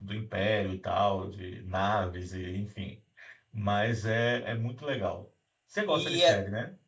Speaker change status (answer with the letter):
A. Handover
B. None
A